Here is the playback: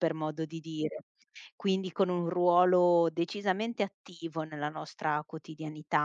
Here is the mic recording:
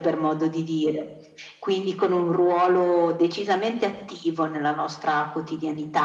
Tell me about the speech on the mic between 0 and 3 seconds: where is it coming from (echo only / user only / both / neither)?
echo only